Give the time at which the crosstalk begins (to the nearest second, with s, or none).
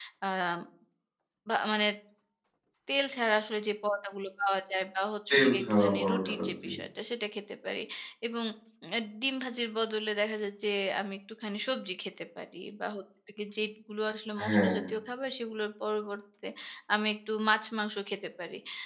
5 s